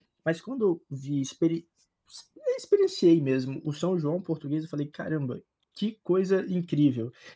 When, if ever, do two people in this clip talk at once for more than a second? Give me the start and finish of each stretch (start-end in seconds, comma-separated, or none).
none